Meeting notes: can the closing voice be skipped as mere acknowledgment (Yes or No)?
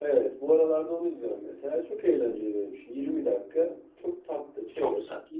Yes